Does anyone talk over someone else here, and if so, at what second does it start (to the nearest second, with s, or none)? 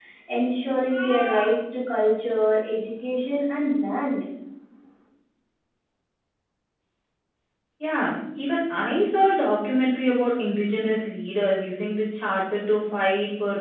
none